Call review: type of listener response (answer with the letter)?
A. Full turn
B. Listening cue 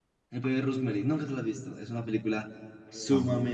B